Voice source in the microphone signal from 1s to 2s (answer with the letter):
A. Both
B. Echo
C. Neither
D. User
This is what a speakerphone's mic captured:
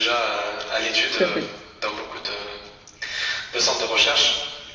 A